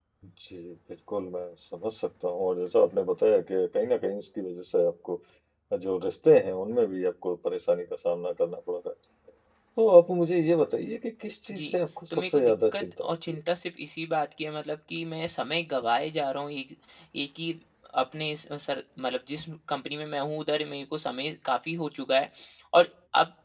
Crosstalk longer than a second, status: present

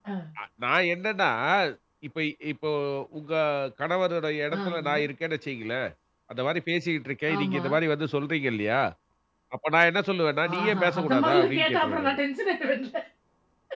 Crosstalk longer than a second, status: present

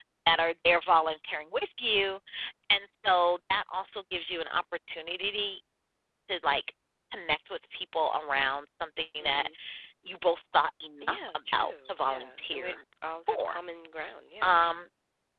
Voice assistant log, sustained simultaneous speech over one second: present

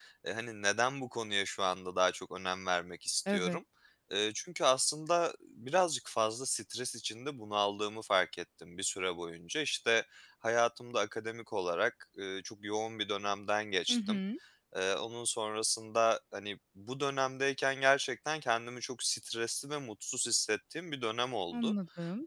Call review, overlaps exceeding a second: none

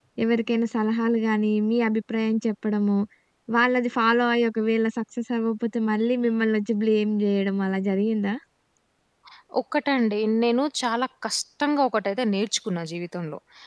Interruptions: none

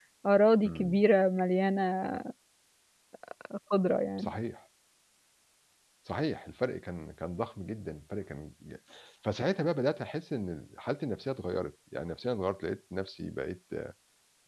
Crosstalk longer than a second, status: none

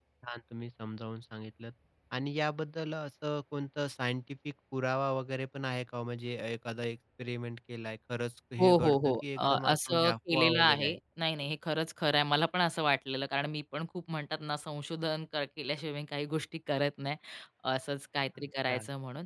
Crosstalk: present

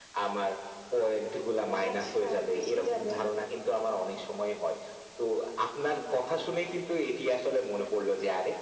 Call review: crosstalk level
present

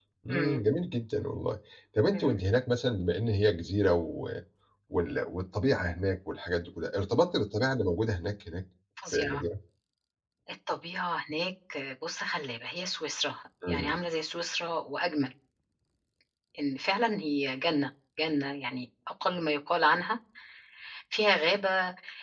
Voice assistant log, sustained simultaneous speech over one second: none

